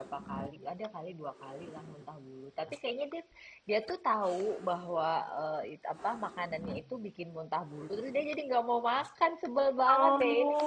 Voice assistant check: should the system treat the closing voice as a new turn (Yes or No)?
Yes